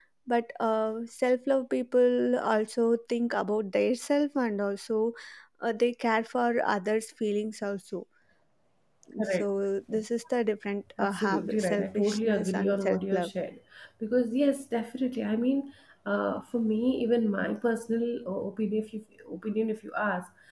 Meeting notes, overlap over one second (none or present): present